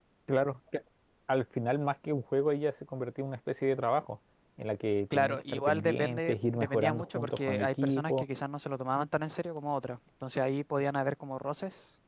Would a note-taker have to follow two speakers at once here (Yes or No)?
Yes